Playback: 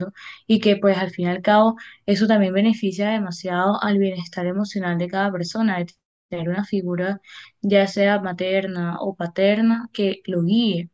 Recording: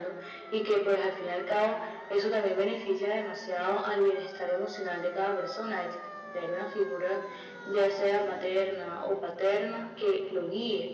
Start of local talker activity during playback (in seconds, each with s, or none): none